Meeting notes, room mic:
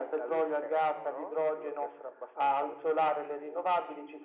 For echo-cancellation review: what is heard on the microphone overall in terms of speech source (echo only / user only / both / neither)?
echo only